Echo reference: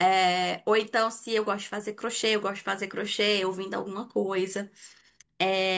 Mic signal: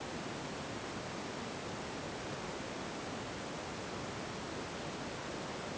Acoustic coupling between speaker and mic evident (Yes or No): No